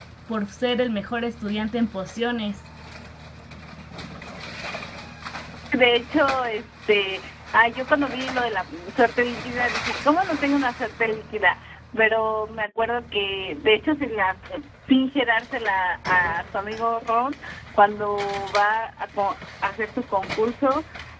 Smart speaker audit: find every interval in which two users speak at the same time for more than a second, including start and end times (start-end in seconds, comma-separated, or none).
none